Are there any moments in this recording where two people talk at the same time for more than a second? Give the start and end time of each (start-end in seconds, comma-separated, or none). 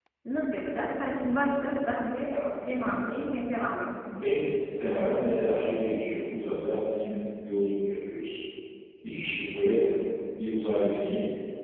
none